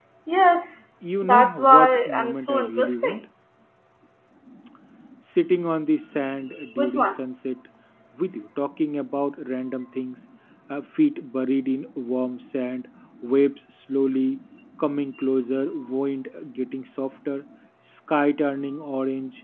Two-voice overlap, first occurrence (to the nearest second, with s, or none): 1 s